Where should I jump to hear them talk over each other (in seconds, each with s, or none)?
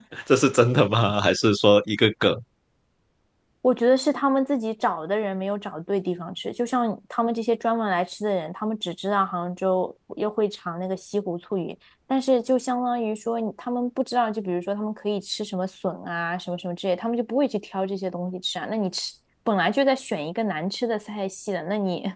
none